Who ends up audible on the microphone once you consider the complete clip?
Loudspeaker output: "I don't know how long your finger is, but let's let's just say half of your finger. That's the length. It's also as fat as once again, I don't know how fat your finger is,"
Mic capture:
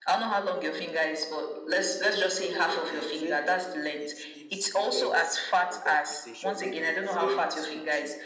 both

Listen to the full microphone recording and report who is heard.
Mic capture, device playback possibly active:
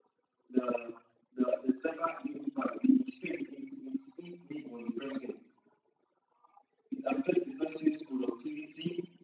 echo only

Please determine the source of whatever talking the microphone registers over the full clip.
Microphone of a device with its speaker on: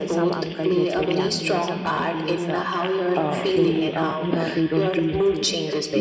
both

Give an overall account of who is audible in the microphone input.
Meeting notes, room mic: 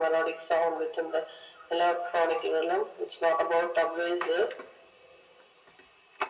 echo only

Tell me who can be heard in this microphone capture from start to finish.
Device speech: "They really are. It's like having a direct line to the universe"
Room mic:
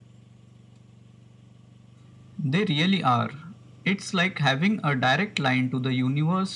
echo only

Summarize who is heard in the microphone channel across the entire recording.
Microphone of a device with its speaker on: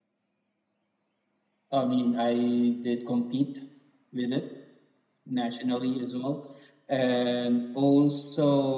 user only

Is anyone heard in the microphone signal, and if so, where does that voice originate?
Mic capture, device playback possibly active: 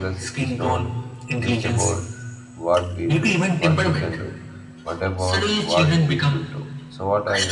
both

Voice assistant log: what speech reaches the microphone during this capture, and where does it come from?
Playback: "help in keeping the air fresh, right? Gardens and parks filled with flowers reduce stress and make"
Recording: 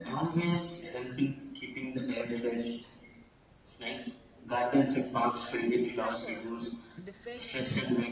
both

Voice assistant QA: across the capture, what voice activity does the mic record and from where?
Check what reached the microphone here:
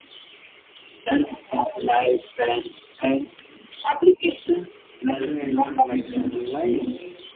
both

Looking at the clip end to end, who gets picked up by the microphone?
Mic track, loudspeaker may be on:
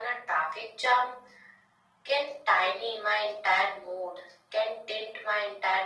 echo only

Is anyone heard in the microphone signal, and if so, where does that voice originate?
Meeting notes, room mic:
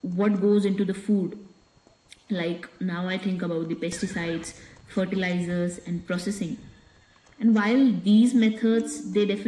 echo only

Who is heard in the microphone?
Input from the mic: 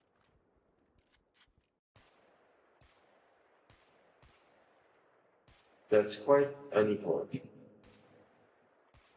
user only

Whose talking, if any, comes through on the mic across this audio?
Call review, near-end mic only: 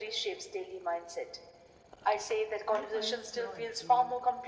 both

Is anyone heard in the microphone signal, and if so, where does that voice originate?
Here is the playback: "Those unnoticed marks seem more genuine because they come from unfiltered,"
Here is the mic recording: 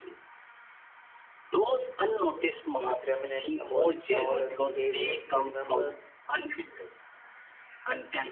both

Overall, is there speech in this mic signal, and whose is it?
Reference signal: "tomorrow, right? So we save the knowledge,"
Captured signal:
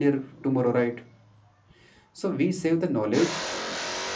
echo only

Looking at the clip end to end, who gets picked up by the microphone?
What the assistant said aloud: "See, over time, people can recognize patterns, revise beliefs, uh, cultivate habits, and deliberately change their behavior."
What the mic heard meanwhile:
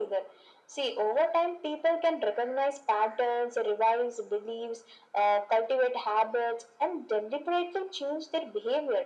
echo only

